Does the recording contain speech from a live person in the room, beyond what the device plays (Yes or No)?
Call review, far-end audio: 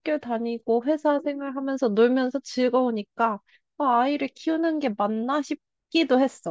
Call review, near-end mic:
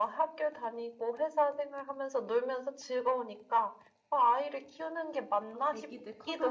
Yes